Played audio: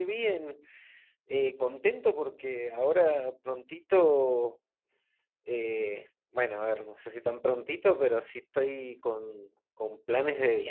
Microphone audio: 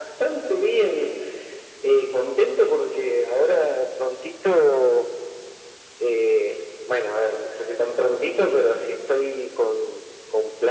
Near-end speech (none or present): none